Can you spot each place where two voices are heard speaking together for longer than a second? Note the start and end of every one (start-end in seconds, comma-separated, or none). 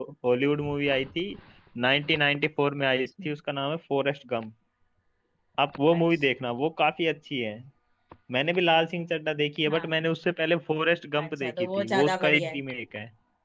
11.2-12.6